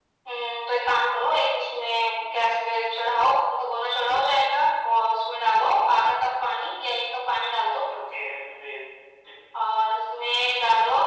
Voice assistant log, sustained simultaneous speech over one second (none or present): none